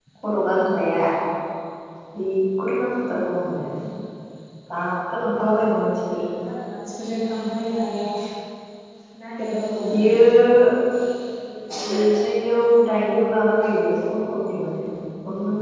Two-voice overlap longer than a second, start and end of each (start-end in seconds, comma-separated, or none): none